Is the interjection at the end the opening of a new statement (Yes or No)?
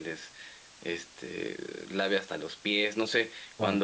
No